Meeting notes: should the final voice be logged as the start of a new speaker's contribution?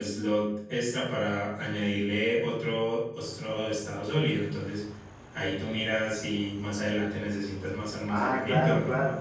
Yes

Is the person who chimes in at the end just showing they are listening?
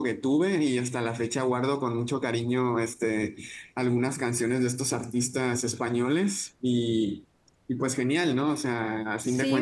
No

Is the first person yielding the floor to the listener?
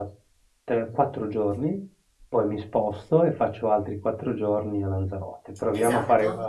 Yes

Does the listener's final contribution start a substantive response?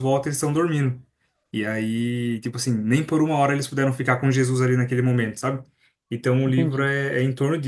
No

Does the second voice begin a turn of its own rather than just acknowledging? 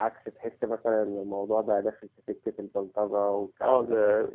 Yes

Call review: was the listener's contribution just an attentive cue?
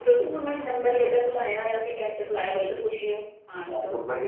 No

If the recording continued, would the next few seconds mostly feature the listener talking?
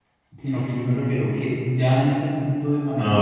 No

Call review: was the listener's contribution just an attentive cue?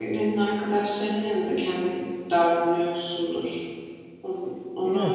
Yes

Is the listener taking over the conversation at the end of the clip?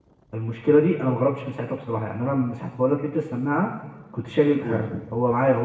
No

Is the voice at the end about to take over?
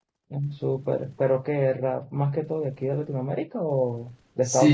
Yes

